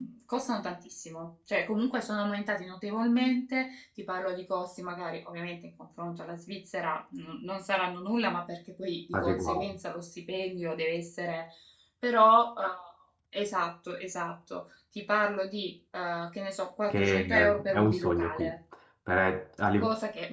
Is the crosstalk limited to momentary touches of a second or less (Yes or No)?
No